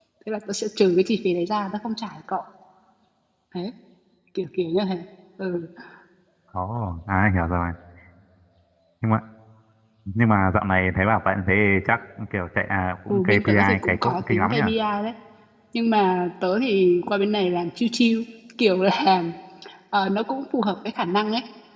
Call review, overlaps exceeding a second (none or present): present